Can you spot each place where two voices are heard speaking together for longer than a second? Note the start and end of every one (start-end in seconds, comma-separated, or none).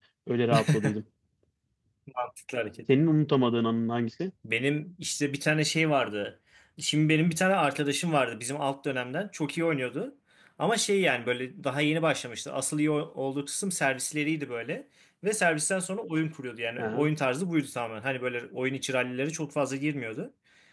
none